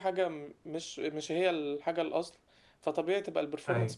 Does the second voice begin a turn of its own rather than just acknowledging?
No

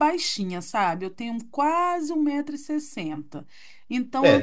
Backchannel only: No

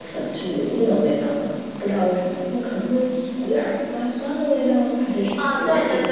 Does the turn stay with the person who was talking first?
No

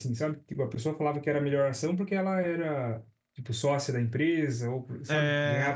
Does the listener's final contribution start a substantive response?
Yes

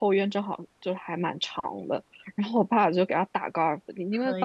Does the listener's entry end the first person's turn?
No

